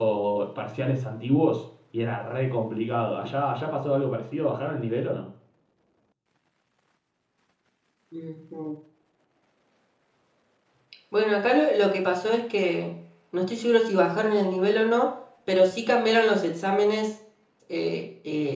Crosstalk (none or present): none